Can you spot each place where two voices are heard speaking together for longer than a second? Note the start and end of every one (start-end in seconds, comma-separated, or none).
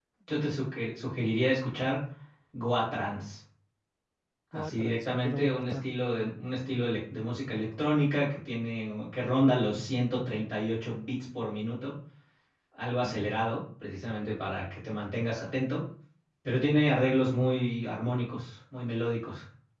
4.5-5.8